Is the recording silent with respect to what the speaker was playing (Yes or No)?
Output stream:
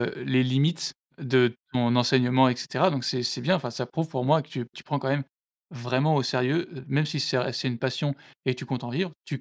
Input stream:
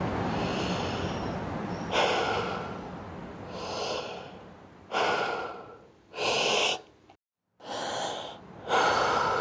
Yes